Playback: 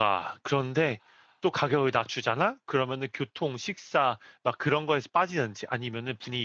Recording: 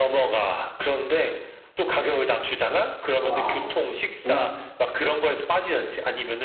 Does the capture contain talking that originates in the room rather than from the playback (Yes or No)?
Yes